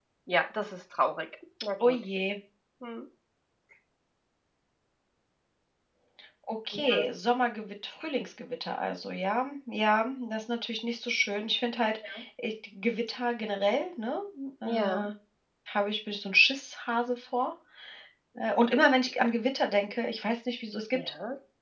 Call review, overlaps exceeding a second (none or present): none